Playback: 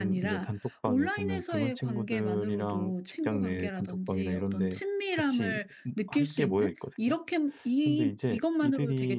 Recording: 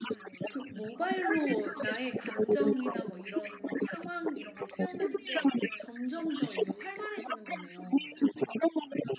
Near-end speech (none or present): present